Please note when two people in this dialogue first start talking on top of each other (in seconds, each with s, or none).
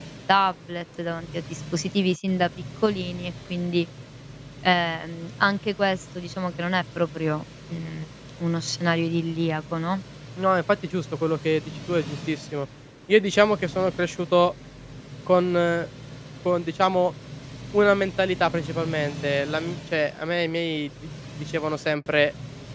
none